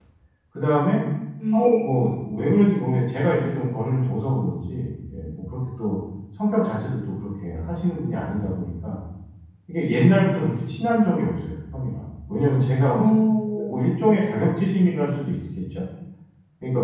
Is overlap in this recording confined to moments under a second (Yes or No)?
Yes